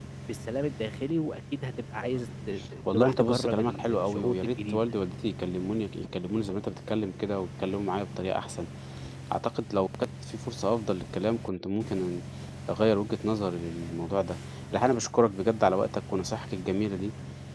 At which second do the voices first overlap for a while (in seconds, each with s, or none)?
2.9 s